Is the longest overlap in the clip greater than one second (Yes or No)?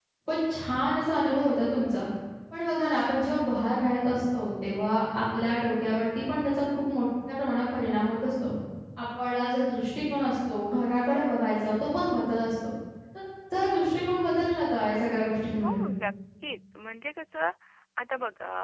No